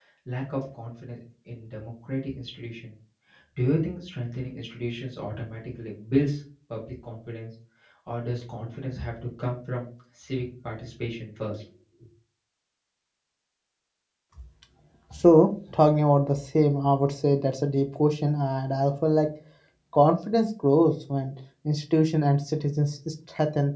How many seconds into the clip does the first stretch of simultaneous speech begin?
none

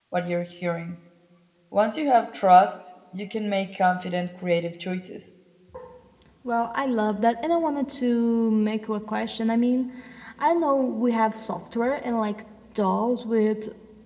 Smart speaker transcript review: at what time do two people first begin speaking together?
none

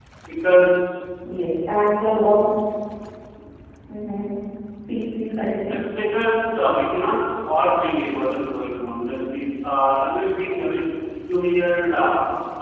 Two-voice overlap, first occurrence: none

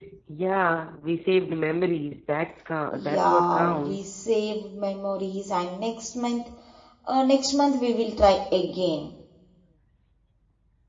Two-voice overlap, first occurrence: 3 s

